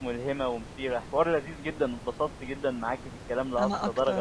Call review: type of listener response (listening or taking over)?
listening